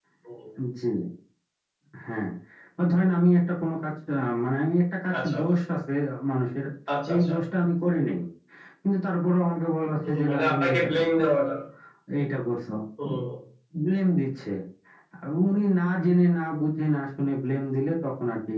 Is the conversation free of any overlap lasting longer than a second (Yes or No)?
No